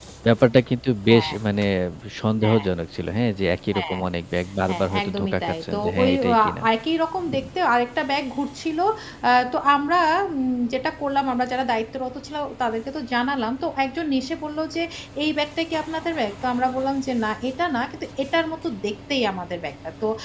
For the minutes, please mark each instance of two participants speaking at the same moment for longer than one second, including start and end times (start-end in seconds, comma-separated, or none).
4.7-6.6